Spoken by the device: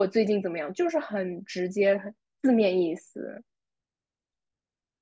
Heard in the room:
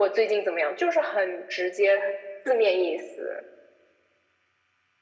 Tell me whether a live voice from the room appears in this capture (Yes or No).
No